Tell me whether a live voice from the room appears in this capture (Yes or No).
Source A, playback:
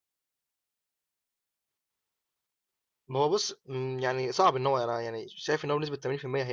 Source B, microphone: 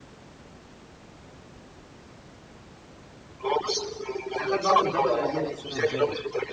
Yes